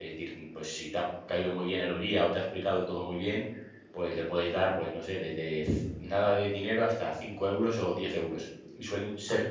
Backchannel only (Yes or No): Yes